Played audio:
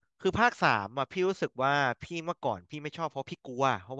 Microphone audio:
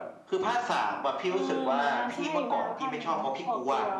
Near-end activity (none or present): present